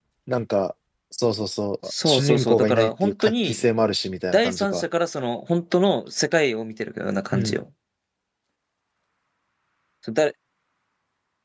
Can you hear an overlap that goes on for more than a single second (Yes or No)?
Yes